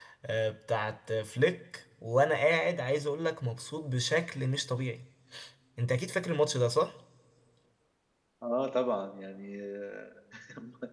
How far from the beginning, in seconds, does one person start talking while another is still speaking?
none

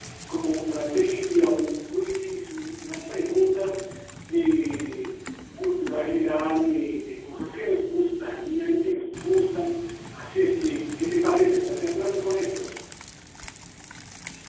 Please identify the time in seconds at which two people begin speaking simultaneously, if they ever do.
none

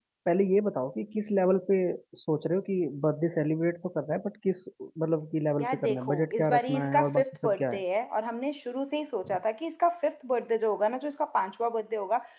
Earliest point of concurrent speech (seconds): 5.6 s

